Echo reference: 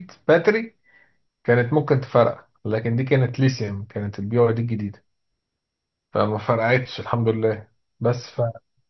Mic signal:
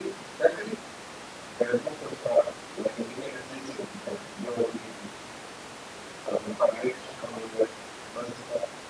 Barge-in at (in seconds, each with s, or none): none